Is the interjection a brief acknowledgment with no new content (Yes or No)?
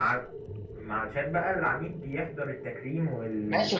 No